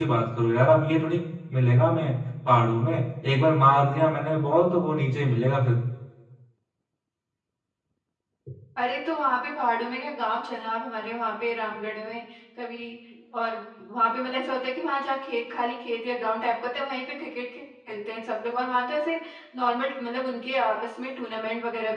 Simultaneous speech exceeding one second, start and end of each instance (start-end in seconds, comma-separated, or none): none